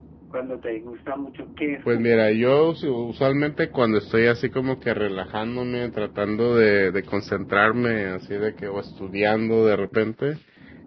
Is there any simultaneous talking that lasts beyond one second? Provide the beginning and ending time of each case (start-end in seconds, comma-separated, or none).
none